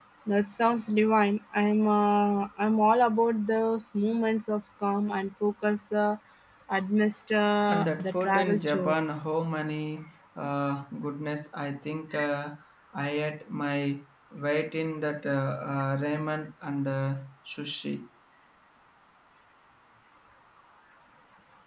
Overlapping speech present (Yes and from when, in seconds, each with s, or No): Yes, from 7.7 s